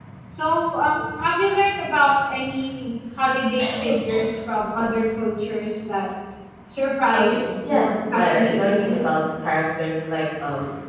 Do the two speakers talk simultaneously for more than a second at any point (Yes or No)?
Yes